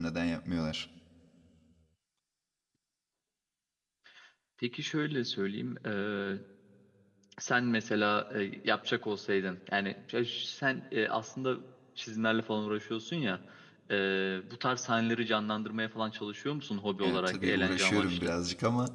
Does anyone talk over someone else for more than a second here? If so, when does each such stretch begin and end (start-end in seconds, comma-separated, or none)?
17.0-18.3